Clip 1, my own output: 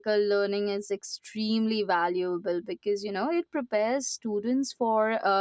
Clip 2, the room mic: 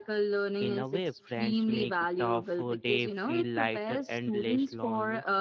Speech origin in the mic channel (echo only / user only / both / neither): both